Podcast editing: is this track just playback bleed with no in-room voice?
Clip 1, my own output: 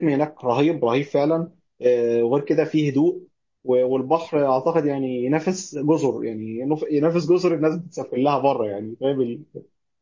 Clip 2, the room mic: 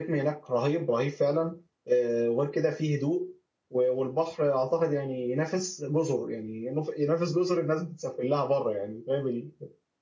Yes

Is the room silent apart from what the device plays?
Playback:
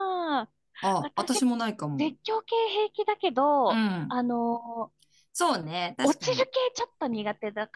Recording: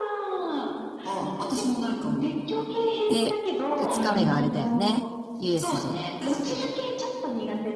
No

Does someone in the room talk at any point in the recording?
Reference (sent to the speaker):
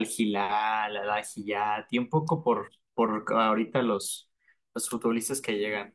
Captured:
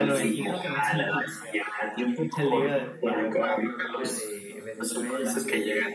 Yes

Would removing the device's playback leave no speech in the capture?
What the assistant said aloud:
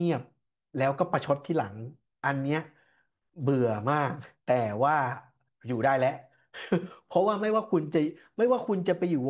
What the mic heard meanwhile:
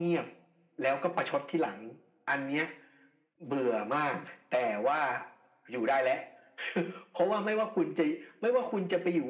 Yes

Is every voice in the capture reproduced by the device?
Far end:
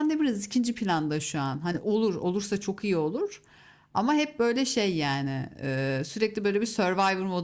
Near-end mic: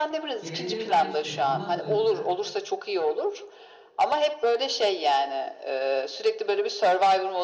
No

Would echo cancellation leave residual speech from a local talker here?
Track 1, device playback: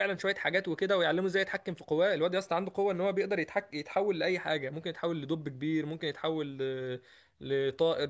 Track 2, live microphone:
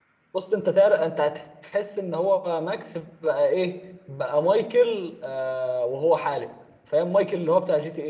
Yes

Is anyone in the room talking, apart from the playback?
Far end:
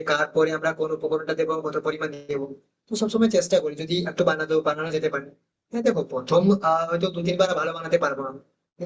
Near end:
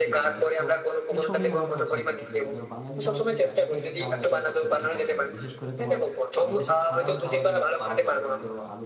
Yes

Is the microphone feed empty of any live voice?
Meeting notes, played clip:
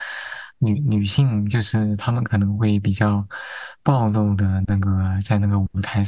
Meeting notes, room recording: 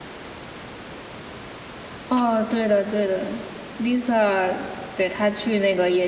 No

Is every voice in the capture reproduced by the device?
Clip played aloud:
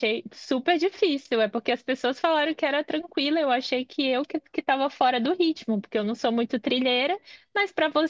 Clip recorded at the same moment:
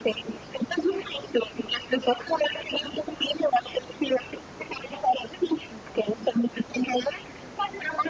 Yes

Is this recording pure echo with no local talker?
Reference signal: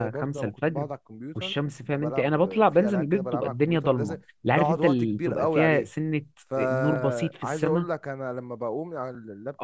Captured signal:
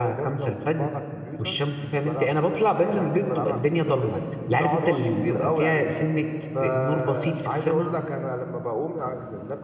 Yes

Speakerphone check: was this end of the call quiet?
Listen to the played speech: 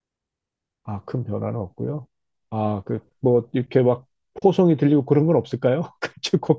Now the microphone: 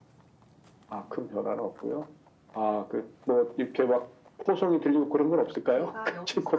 No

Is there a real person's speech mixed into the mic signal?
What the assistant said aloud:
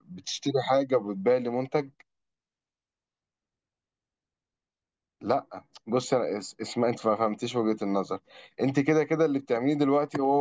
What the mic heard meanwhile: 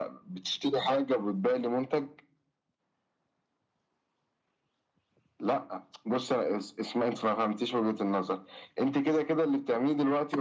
No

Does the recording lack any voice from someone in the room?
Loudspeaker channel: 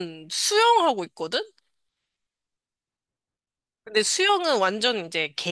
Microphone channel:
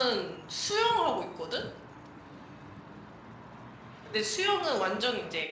Yes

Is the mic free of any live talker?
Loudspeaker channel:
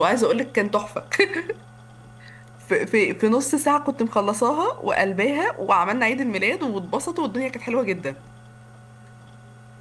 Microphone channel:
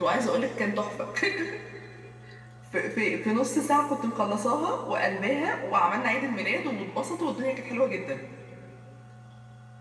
Yes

